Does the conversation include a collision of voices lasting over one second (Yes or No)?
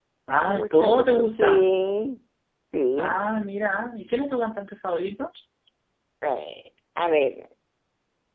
Yes